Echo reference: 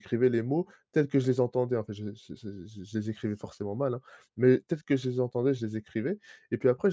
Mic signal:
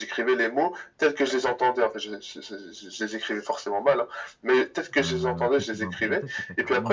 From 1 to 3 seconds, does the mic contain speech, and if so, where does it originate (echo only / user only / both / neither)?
echo only